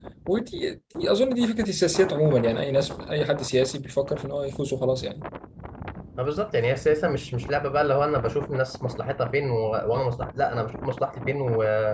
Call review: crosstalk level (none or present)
none